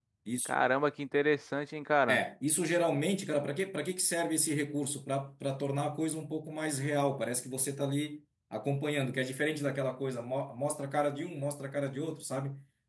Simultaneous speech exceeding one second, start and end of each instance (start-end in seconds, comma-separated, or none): none